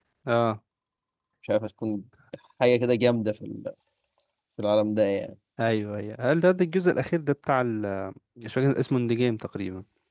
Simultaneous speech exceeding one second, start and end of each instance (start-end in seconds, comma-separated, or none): none